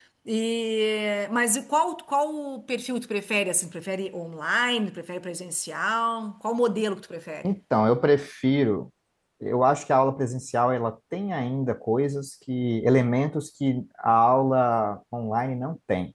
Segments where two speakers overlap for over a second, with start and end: none

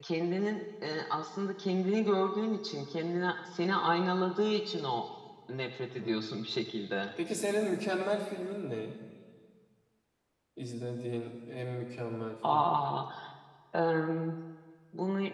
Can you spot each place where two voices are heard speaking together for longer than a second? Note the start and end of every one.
none

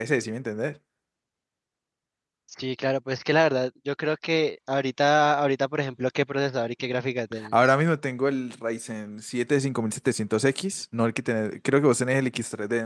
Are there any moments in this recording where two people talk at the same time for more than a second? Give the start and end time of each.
none

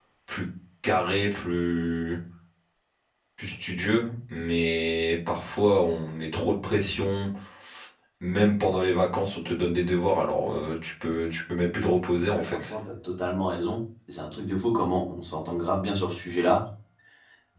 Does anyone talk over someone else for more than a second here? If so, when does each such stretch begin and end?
none

